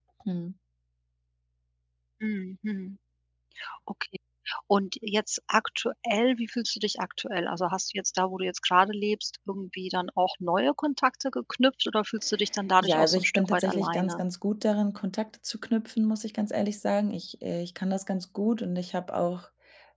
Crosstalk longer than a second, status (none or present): present